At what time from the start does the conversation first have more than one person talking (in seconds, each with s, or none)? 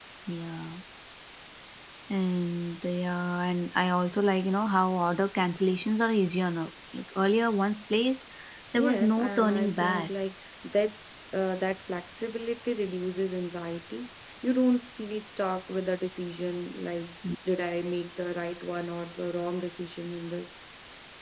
8.7 s